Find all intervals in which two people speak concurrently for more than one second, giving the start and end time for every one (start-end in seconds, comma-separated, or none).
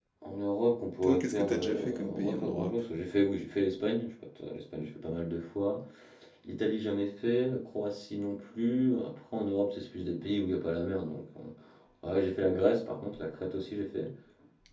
1.0-2.8